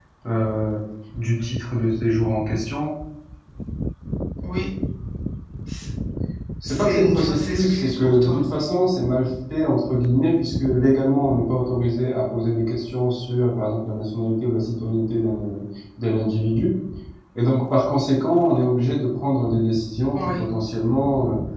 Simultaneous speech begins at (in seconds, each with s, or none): 6.6 s